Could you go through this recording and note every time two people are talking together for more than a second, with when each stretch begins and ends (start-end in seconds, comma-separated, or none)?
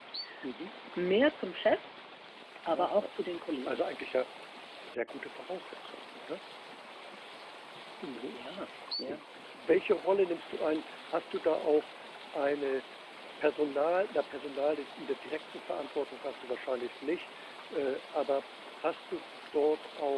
none